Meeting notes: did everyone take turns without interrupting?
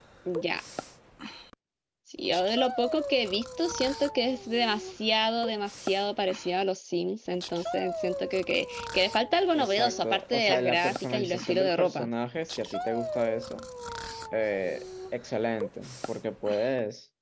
No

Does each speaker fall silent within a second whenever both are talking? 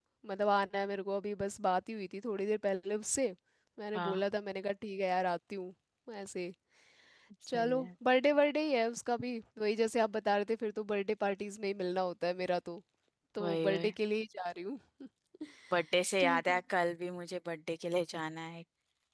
Yes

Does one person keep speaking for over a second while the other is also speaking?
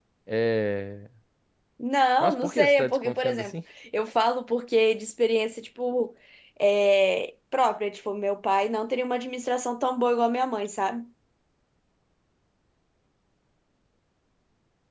Yes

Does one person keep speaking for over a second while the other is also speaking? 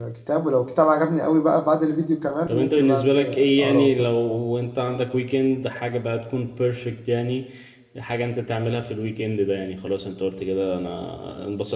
Yes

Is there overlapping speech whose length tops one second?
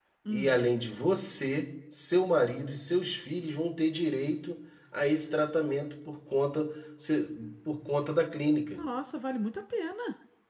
No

